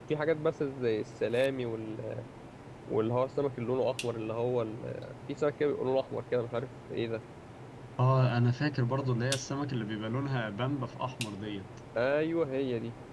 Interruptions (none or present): none